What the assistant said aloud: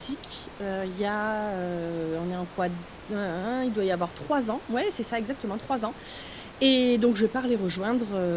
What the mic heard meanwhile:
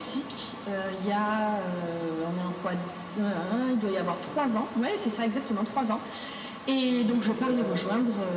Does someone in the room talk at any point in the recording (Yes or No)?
Yes